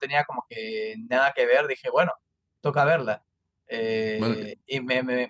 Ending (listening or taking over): listening